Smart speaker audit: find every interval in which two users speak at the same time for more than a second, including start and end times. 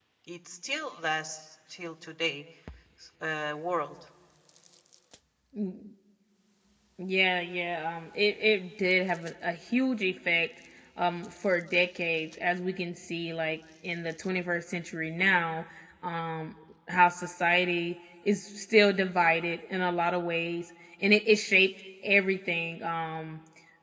none

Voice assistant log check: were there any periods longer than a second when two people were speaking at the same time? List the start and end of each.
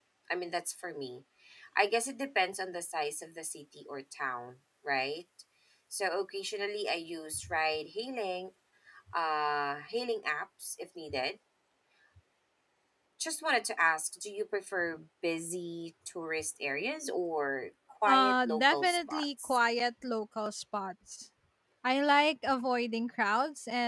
18.0-19.6

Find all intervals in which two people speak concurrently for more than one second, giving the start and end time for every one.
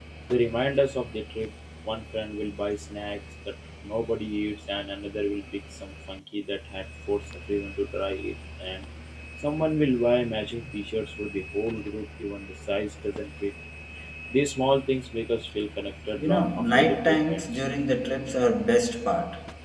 16.1-17.5

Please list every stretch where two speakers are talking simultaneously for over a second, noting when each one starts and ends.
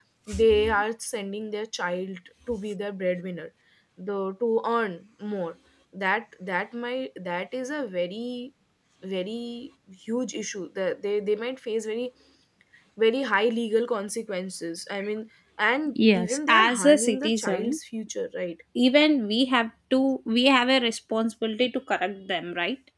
16.1-17.8

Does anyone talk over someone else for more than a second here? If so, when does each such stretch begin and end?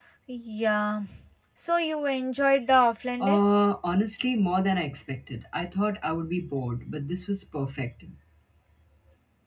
none

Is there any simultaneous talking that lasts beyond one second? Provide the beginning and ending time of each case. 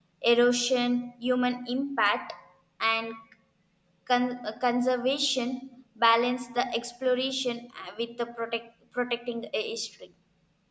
none

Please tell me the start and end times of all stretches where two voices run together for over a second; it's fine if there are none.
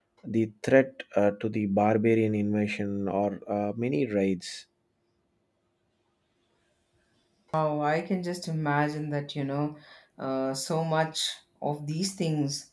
none

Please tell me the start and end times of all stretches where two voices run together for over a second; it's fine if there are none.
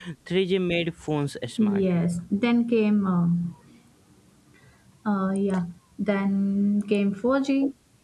none

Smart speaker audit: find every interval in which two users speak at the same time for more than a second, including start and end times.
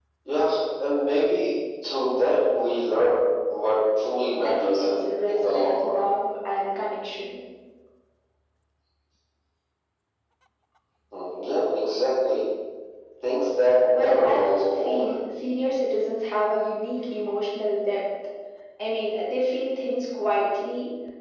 4.5-6.1, 13.9-15.1

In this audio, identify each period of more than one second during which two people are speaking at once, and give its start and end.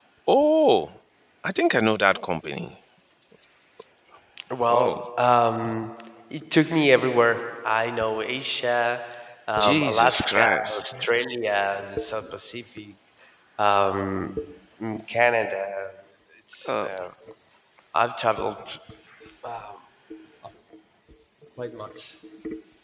9.6-10.8

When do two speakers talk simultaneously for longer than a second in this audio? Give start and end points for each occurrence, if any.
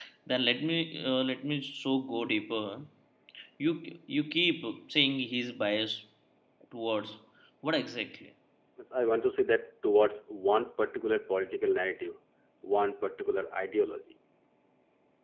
none

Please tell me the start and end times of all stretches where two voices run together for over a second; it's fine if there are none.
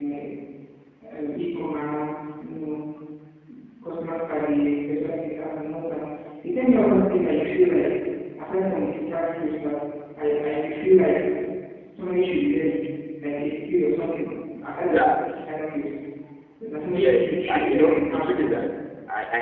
16.9-18.3

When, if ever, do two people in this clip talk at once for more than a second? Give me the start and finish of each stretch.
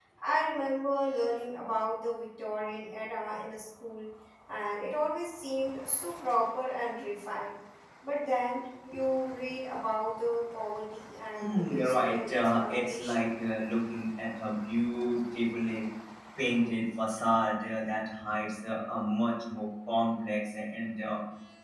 11.4-13.3

